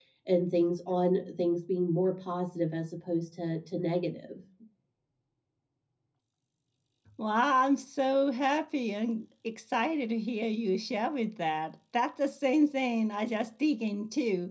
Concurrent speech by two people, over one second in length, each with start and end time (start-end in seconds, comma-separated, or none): none